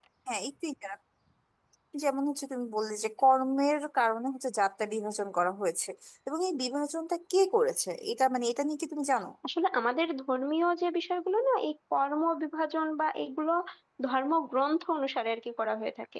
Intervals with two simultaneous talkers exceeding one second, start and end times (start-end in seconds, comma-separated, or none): none